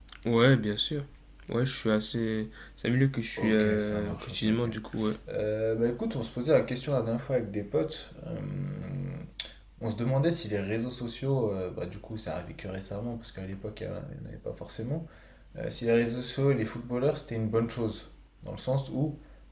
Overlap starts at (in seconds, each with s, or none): 3.4 s